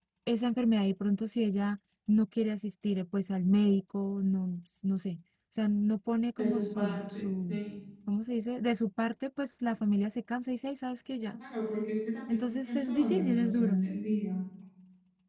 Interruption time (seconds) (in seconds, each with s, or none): 6.4 s